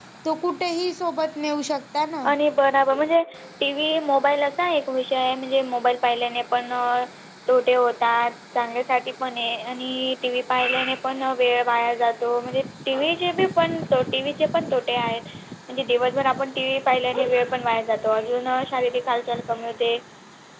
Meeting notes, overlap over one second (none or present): none